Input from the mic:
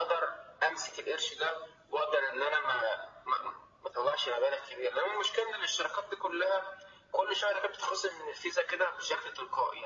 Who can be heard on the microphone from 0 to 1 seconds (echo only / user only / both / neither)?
echo only